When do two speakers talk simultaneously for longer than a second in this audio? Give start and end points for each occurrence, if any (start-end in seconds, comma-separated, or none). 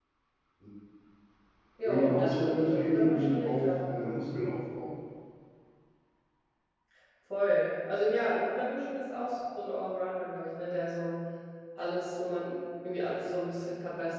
1.8-3.7